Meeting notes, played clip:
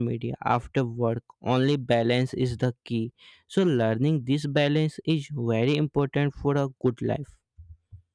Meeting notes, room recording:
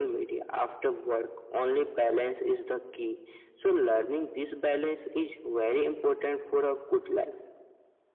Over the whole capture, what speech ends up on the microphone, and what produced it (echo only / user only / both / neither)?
echo only